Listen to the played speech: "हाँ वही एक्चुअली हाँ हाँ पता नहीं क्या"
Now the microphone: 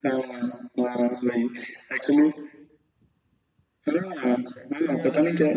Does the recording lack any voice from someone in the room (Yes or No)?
No